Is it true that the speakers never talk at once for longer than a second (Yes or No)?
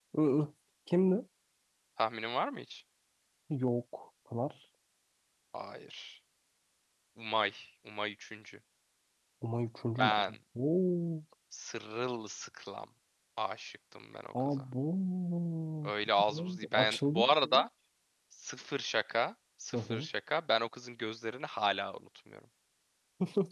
No